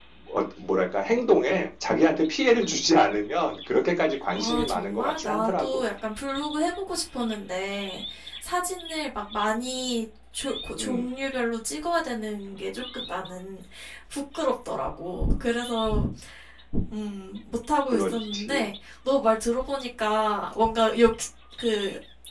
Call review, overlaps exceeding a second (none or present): present